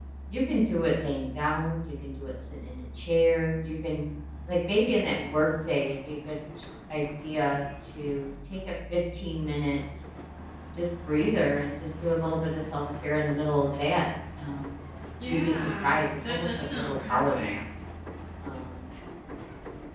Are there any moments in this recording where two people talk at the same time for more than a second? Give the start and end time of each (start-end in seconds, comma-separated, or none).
15.2-17.6